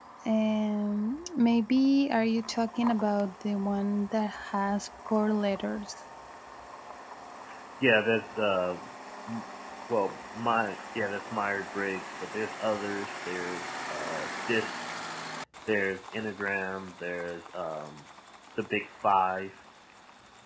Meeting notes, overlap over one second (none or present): none